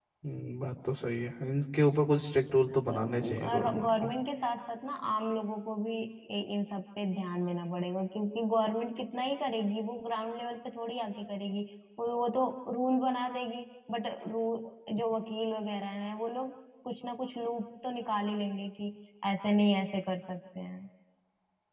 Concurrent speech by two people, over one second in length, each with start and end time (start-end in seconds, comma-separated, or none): 2.9-4.1